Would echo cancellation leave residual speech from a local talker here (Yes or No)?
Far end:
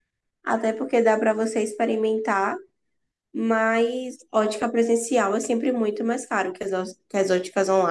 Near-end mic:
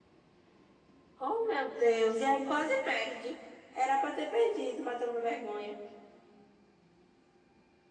Yes